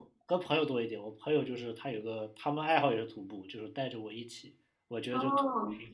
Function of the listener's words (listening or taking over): listening